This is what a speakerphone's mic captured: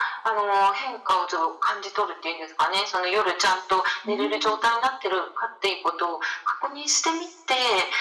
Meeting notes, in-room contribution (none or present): present